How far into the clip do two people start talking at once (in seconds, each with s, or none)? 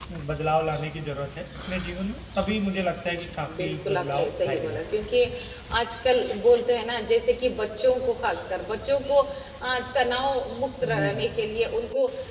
2.8 s